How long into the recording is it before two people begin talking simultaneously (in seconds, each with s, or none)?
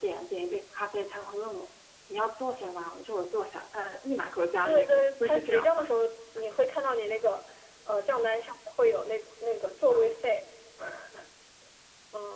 4.6 s